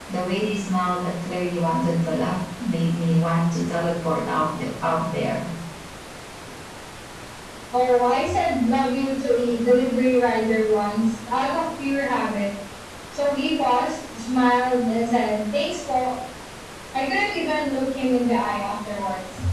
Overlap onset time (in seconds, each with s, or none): none